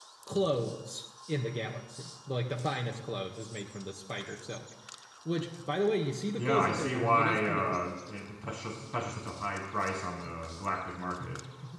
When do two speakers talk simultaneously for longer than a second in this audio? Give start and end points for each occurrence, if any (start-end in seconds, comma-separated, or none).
6.4-7.9